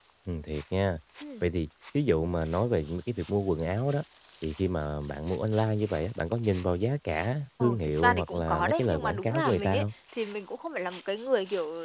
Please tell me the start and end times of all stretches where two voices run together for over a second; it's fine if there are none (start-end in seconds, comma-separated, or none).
7.6-9.8